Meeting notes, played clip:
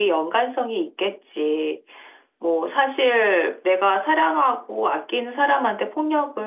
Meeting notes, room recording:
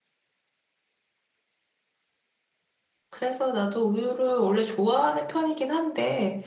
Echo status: none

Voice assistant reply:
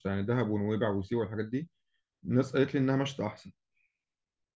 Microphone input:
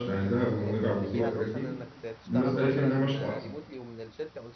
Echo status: present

